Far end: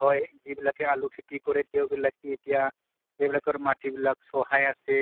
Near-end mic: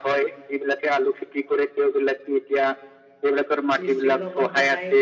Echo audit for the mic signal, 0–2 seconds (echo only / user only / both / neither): echo only